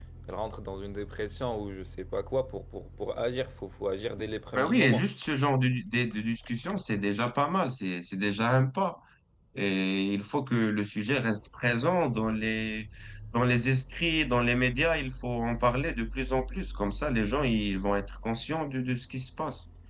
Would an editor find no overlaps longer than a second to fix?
Yes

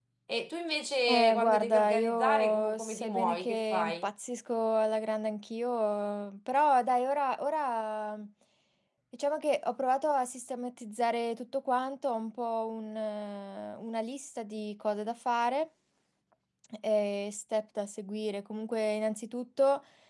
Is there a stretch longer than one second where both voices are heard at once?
Yes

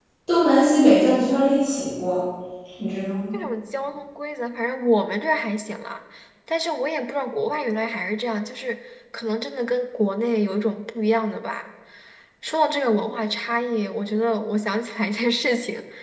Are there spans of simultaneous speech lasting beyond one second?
No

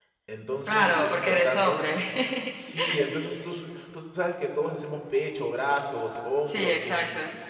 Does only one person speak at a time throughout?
No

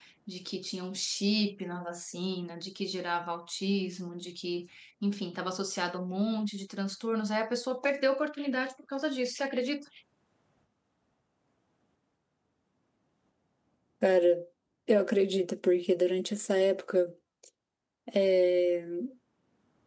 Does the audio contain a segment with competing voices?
No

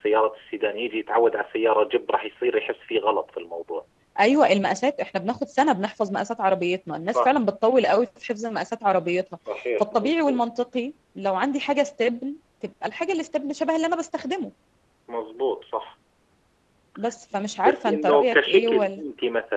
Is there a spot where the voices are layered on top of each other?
Yes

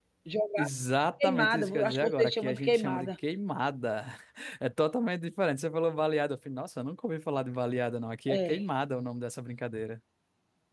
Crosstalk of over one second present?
Yes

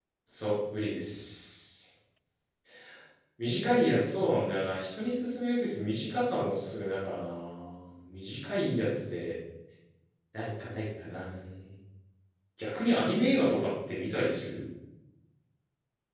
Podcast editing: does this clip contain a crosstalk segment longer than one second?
No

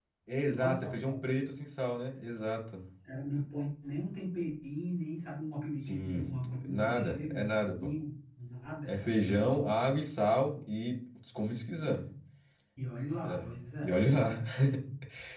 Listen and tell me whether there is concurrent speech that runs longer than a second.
Yes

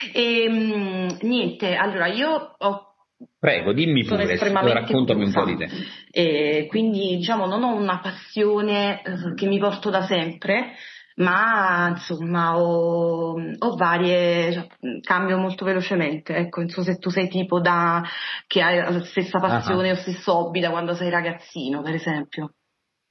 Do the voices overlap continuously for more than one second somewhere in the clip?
Yes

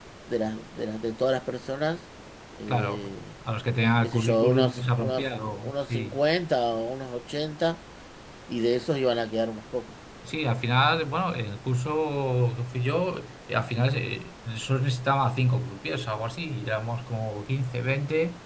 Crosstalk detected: Yes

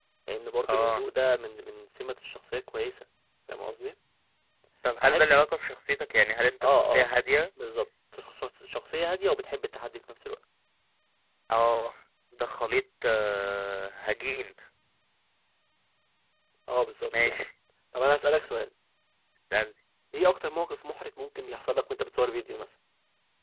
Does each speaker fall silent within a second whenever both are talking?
Yes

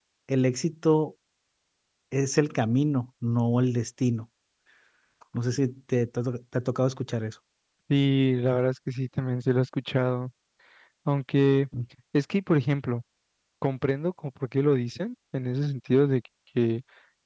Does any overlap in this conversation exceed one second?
No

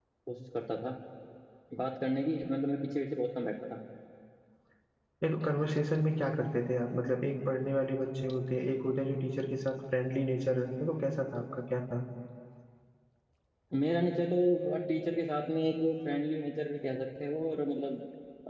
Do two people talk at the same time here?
No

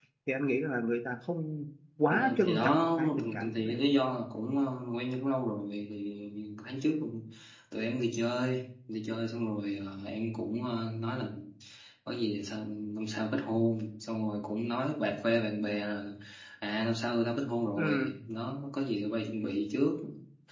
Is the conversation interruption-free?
No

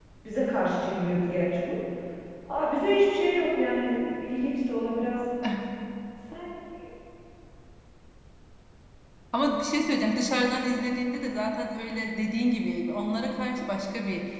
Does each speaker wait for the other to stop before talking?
Yes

